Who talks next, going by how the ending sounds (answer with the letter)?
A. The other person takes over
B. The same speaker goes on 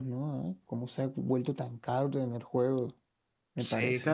A